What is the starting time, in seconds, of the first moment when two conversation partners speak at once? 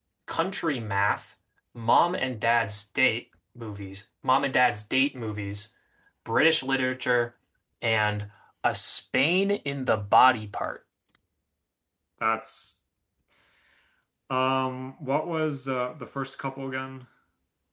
none

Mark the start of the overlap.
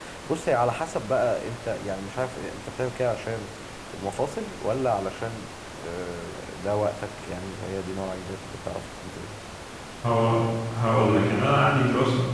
none

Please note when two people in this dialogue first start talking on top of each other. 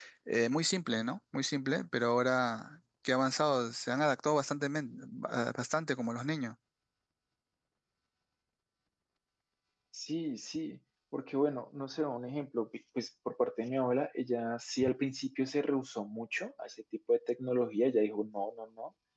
none

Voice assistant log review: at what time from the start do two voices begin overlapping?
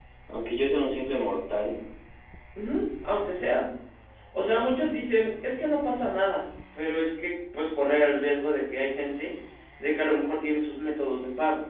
none

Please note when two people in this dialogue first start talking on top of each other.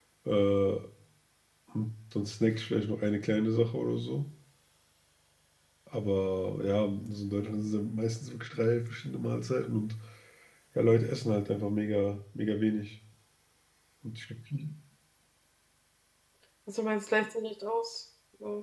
none

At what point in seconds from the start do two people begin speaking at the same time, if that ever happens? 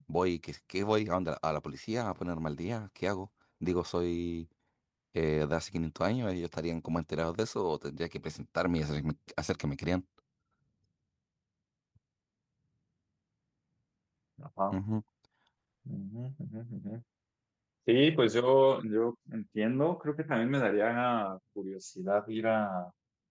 none

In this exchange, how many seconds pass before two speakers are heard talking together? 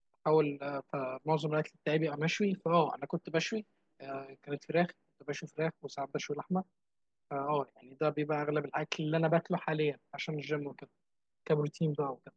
none

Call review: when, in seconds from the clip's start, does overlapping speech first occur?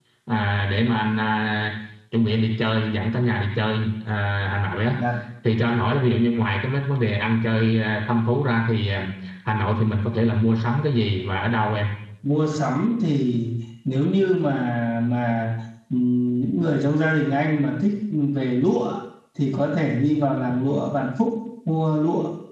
none

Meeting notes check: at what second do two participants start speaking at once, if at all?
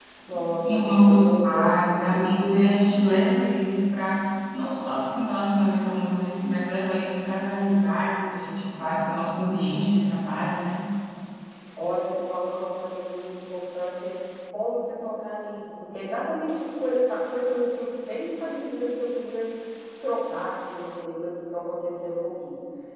0.6 s

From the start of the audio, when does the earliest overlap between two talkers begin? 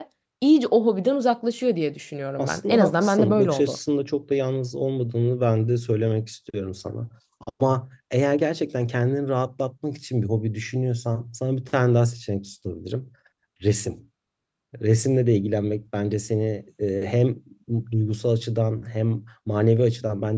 2.4 s

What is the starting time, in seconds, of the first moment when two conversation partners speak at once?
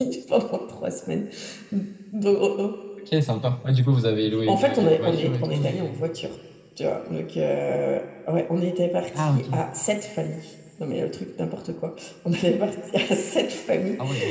4.5 s

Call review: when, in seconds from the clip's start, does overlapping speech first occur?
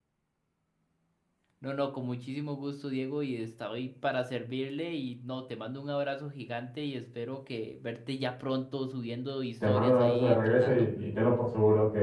9.6 s

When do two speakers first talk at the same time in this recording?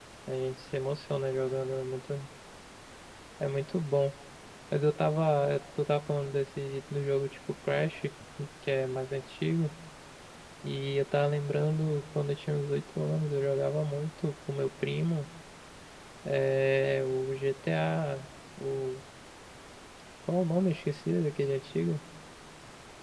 none

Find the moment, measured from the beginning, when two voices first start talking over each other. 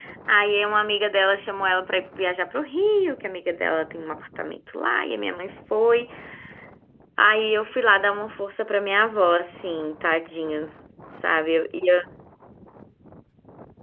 none

